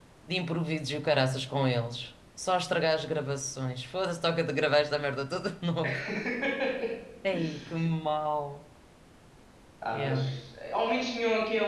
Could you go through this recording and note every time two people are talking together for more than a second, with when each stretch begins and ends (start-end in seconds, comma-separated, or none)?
none